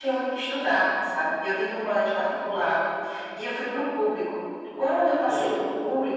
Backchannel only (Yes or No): Yes